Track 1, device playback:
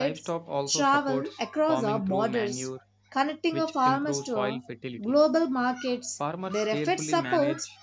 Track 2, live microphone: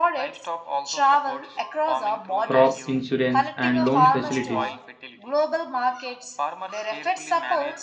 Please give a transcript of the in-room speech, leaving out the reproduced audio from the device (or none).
crop insurance, and loan facilities,